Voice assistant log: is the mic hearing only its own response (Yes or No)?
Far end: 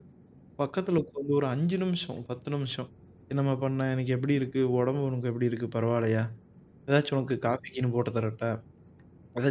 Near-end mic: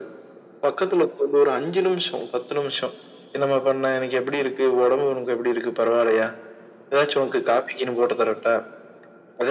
Yes